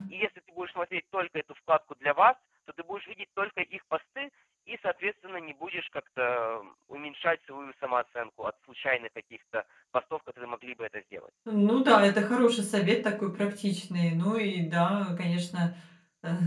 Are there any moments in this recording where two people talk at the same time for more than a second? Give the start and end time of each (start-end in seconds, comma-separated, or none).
none